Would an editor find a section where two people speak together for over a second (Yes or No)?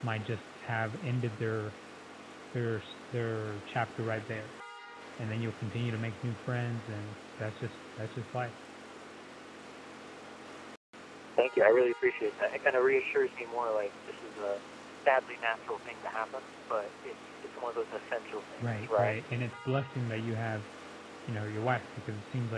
No